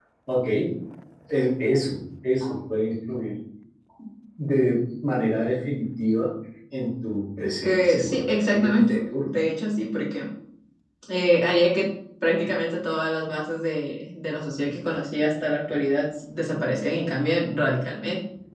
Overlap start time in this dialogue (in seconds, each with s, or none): 7.6 s